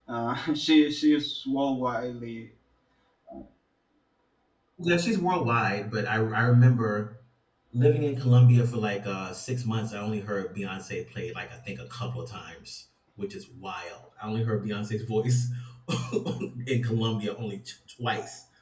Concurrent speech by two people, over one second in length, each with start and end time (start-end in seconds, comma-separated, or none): none